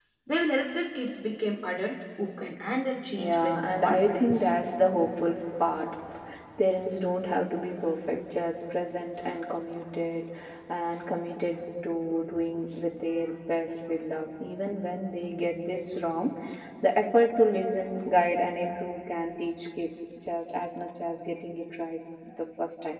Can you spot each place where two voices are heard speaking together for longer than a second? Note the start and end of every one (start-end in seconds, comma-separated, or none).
3.1-4.5